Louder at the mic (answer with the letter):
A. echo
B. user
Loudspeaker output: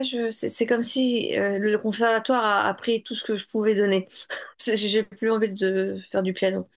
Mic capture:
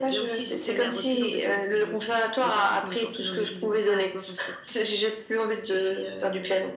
A